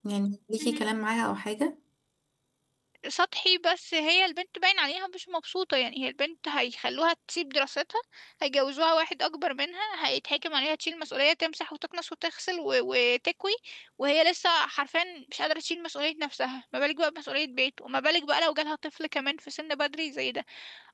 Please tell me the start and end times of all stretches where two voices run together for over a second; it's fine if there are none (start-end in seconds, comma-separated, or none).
none